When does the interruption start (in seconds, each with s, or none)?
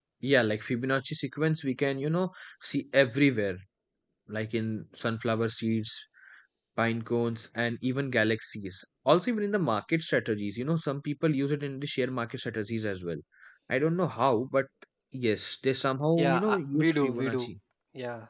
16.2 s